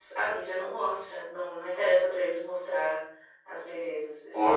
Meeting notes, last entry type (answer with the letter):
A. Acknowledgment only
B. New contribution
B